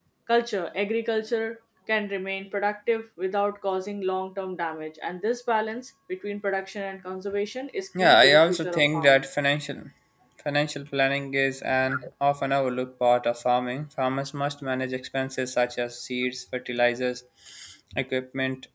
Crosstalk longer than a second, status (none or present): present